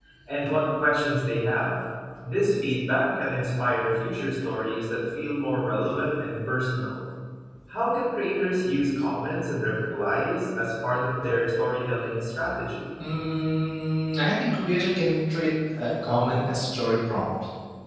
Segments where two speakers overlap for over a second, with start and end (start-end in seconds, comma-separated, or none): none